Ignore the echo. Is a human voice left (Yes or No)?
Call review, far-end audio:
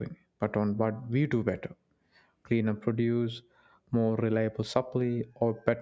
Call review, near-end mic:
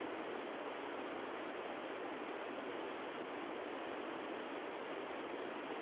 No